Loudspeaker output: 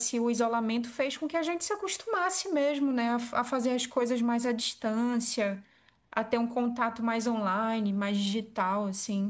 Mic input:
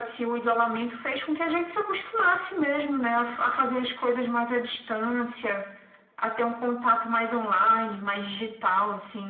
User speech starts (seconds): none

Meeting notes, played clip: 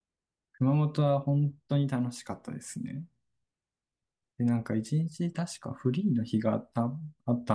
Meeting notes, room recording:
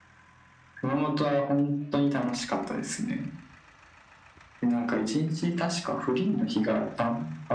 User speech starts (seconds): none

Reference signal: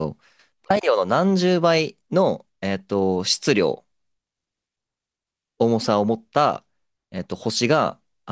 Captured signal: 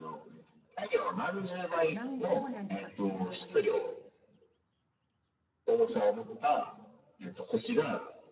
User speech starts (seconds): 1.9 s

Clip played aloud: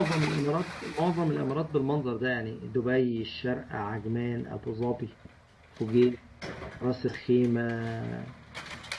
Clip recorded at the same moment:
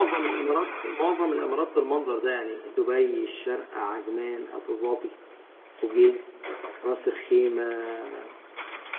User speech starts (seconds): none

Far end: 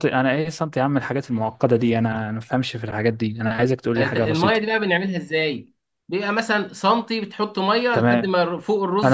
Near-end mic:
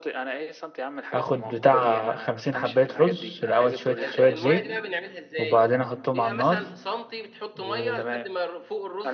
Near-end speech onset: 1.1 s

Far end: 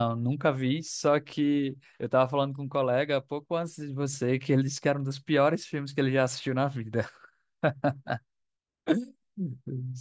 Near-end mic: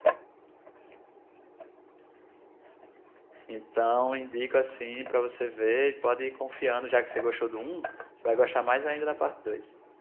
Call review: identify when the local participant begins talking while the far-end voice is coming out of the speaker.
3.5 s

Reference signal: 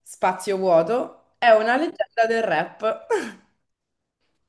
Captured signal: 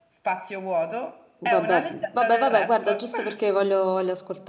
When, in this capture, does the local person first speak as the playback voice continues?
1.4 s

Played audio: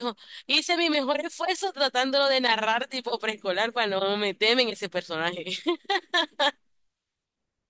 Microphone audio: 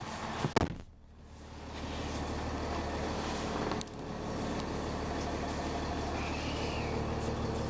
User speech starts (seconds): none

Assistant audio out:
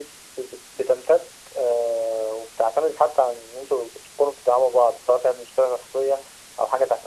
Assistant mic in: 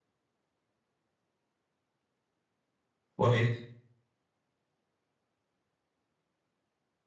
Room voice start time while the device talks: 3.2 s

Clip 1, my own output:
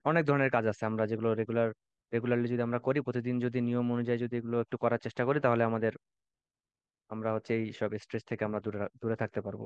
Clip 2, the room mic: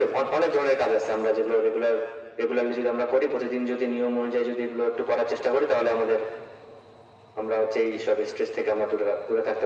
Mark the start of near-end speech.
none

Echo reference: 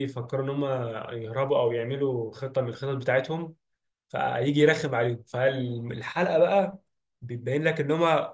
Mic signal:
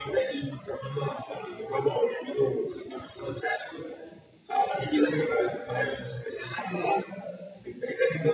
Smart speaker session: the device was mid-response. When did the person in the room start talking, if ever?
none

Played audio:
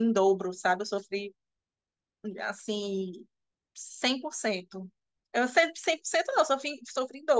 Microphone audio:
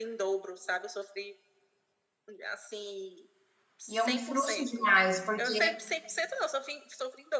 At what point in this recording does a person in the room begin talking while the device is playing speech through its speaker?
3.9 s

